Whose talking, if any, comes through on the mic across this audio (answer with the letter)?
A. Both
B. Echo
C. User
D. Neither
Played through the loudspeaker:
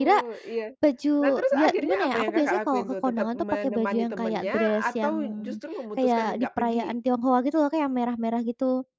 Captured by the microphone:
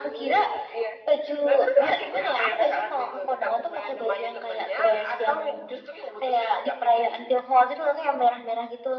B